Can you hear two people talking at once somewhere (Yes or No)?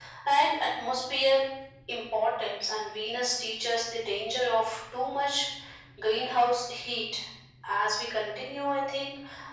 No